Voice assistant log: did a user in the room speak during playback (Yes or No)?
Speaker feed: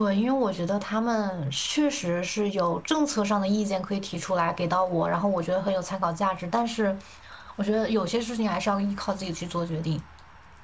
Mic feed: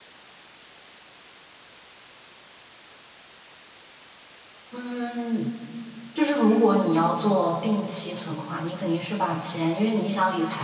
Yes